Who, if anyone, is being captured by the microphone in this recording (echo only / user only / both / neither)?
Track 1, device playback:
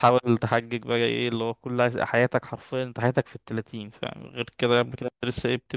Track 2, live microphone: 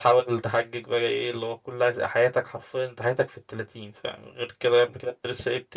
echo only